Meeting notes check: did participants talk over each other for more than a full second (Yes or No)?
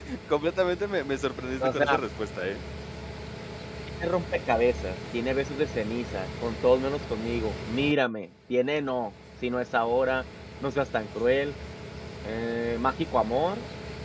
No